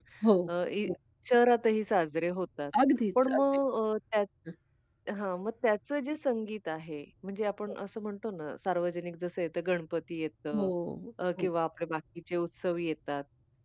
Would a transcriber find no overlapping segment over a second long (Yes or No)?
Yes